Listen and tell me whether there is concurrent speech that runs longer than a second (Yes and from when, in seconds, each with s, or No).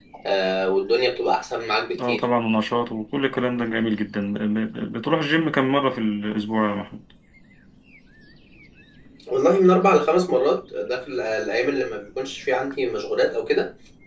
No